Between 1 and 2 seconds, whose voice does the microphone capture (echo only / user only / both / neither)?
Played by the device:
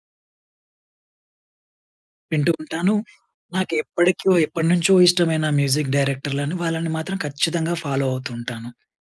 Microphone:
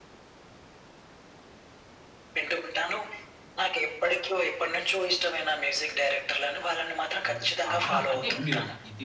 neither